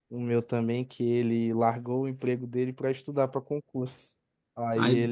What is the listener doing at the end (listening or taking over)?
listening